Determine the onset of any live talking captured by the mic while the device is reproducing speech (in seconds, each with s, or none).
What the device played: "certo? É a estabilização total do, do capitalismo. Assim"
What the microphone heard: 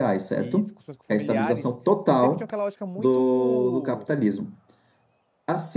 0.4 s